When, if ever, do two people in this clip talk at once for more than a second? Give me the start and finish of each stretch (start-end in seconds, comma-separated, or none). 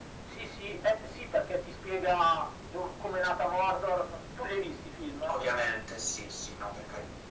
none